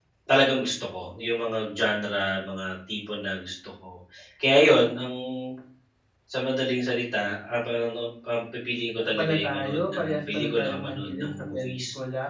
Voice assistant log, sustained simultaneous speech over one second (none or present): present